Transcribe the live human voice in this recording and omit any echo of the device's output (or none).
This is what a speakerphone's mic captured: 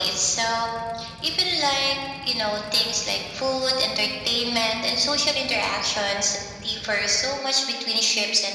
none